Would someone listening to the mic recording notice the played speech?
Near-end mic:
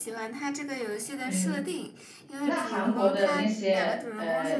Yes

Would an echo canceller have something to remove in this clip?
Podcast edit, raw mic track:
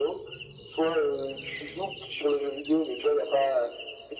Yes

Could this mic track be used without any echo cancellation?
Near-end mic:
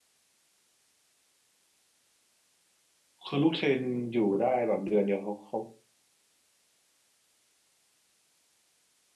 Yes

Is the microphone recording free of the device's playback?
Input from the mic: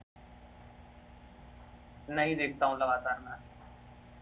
Yes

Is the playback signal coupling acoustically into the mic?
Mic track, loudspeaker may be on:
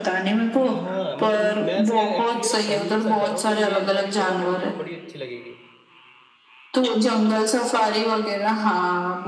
Yes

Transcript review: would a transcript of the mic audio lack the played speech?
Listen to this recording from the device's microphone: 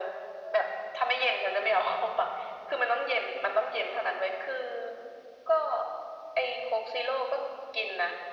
No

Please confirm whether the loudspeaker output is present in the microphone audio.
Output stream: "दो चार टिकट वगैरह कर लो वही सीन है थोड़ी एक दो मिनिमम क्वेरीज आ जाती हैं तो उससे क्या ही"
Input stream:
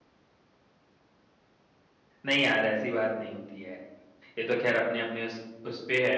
No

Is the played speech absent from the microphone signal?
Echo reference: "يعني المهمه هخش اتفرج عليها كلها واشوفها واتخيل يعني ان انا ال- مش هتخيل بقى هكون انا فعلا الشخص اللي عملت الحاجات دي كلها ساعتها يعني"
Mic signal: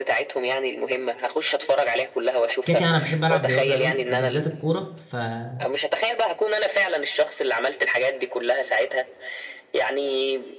No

